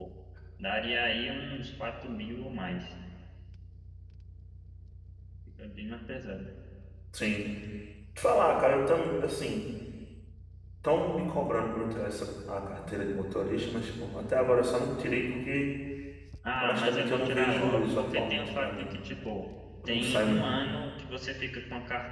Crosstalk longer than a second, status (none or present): present